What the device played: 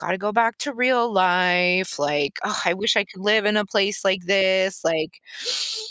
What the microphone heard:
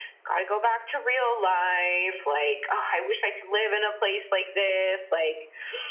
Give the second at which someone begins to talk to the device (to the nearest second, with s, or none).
none